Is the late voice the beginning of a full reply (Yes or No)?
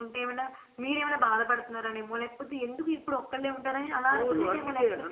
Yes